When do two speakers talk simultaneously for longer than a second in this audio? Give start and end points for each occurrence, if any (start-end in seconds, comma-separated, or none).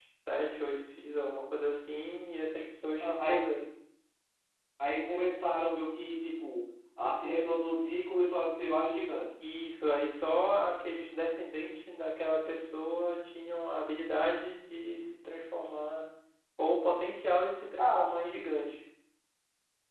none